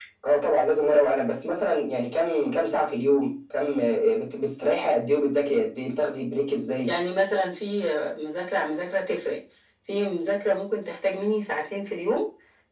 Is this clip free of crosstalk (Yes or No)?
Yes